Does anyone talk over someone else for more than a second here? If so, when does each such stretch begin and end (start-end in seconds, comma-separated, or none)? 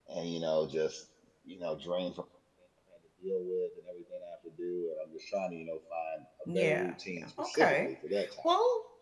6.5-7.9